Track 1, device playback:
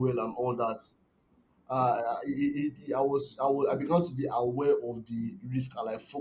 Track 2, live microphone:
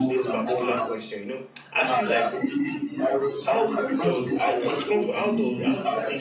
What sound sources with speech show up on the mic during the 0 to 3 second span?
both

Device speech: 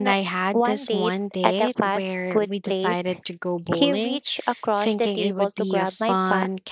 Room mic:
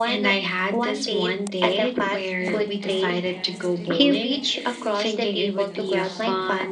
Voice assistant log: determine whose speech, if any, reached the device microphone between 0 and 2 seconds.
echo only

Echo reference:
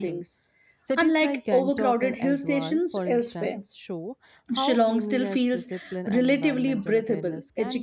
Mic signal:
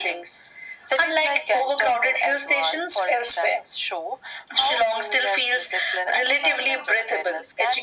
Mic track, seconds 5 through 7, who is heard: echo only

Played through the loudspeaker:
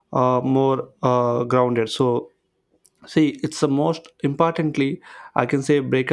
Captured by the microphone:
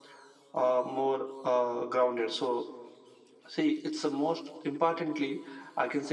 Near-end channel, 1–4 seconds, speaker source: echo only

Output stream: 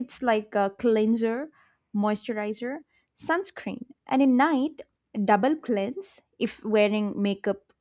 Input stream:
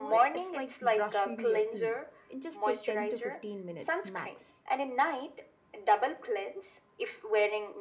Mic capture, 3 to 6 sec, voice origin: both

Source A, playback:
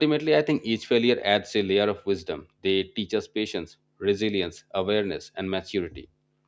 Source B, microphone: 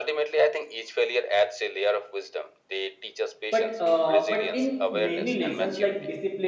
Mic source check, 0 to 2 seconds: echo only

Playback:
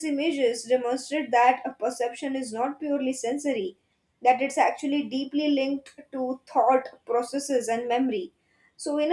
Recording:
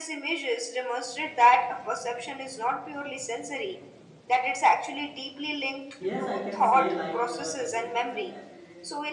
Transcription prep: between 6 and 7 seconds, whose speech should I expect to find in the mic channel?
both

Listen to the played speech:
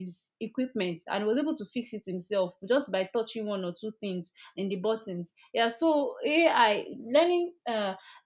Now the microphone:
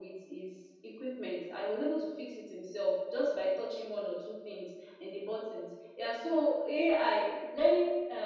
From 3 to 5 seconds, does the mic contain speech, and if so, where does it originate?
echo only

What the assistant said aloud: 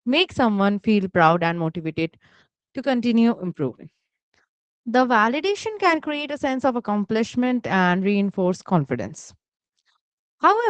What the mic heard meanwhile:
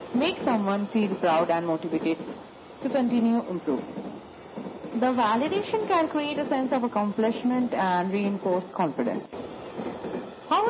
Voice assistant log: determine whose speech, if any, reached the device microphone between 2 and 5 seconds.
echo only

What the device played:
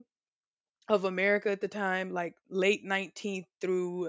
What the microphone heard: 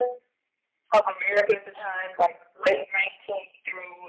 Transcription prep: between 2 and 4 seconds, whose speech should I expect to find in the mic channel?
echo only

